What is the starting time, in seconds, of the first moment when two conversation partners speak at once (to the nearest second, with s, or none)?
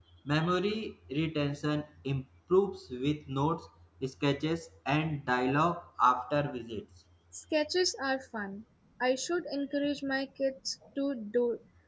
none